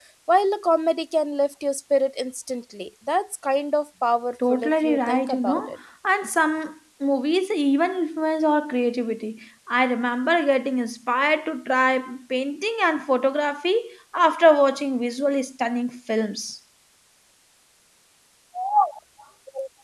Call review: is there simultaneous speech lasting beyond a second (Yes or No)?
Yes